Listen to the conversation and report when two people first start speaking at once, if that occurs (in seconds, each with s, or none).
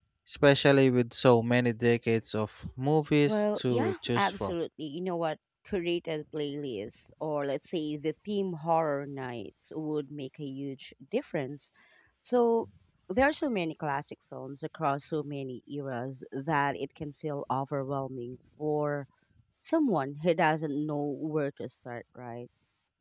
3.3 s